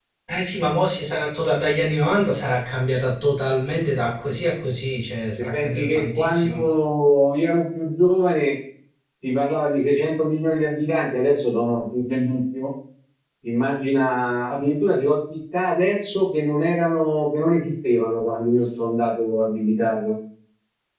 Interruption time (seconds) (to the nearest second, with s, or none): 5 s